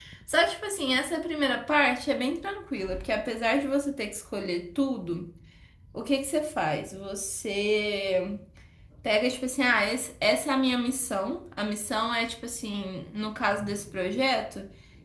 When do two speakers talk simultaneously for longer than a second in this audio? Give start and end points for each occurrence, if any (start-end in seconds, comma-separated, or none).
none